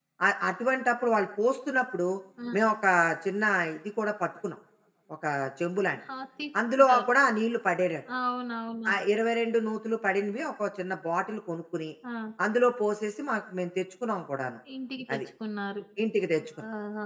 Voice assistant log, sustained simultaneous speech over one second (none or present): none